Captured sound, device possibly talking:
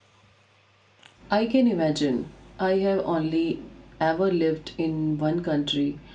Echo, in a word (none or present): none